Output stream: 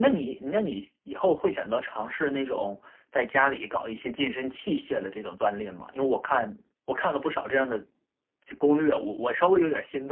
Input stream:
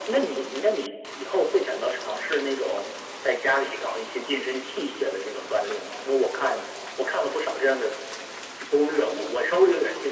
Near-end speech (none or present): none